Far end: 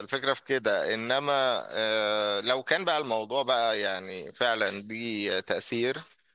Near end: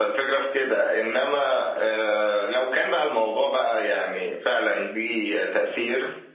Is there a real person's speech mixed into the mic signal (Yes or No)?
No